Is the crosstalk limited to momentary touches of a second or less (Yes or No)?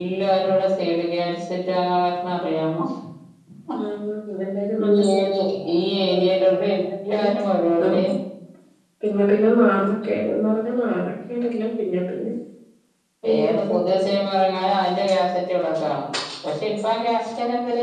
No